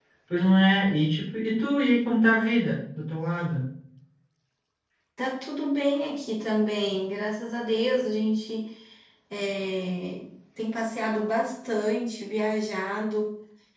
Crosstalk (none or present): none